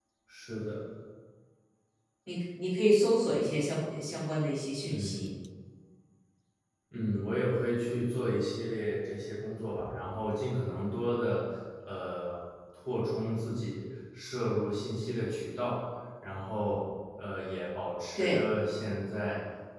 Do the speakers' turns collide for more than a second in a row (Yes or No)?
No